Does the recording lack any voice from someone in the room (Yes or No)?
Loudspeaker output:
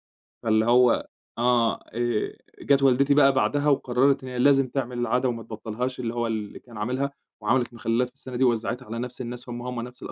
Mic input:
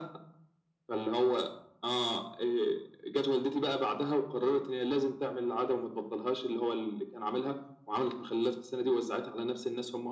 Yes